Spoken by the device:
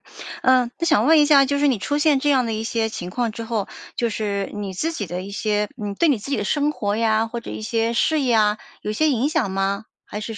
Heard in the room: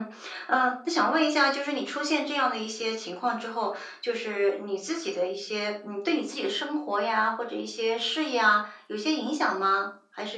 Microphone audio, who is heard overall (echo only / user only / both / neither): echo only